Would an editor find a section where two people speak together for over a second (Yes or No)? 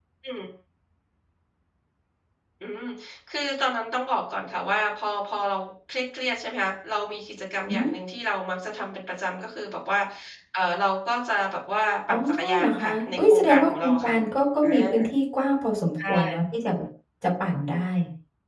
Yes